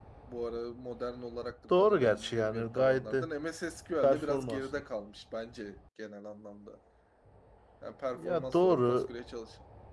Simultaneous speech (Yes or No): Yes